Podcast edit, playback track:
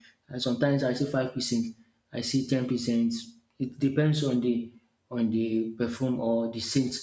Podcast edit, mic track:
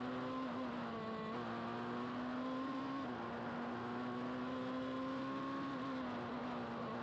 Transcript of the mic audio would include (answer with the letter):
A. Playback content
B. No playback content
B